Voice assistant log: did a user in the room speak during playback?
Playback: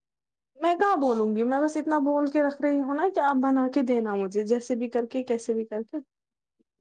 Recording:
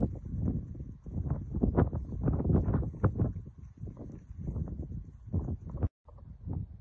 No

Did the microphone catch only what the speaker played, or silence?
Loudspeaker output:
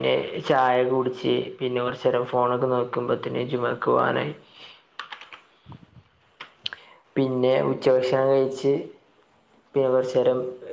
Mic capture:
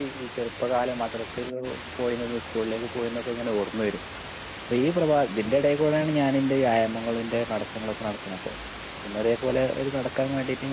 No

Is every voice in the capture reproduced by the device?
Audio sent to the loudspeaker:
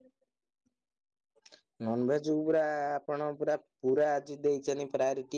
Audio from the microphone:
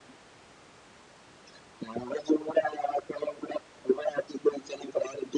Yes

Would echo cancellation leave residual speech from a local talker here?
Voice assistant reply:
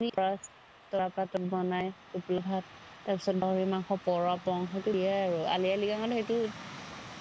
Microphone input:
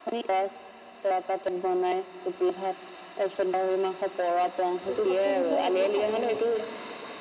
Yes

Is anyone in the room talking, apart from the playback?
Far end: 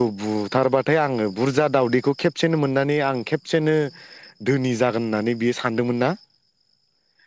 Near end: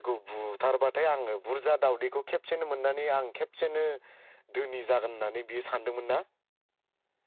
No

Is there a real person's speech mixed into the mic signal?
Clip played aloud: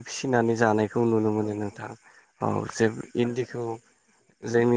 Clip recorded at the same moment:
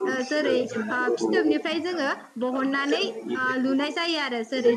Yes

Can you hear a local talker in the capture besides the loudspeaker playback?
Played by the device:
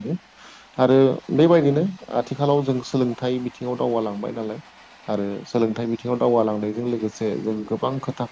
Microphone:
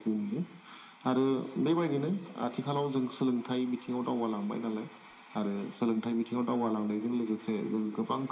No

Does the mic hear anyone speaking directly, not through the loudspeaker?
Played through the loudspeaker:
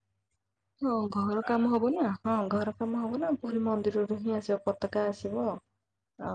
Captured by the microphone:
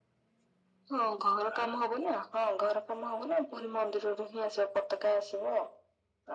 No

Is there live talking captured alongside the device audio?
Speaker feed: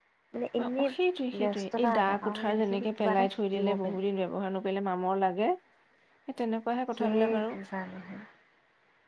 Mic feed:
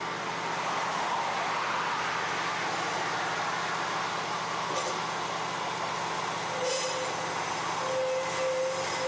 No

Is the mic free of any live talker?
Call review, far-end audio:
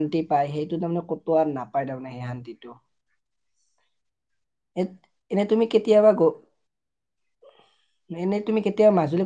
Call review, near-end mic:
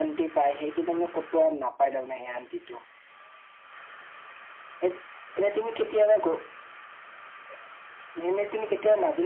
Yes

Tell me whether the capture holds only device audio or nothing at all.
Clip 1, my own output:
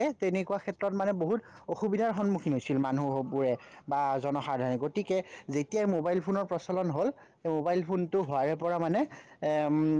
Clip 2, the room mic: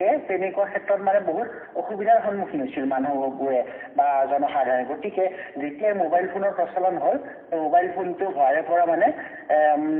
Yes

